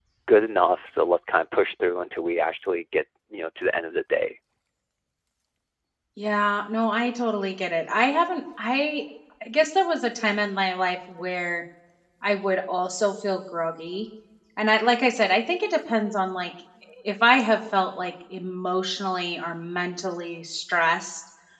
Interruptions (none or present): none